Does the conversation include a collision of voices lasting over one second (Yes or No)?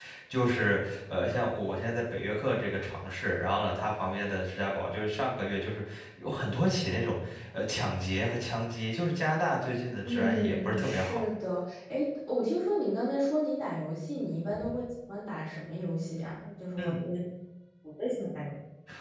Yes